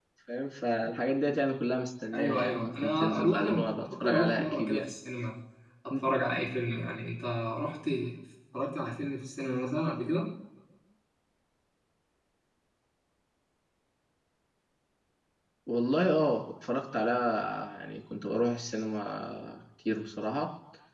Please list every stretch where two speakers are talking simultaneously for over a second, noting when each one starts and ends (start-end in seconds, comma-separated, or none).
2.1-4.9